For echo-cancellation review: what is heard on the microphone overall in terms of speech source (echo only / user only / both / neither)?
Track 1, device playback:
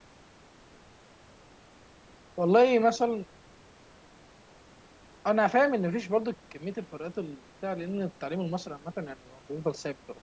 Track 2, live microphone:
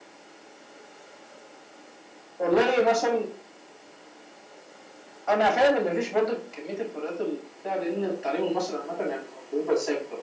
echo only